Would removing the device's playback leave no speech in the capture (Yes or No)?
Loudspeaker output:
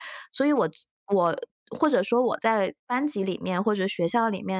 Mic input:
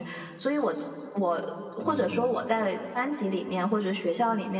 No